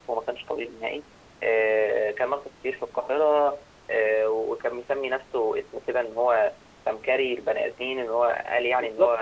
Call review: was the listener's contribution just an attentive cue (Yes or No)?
No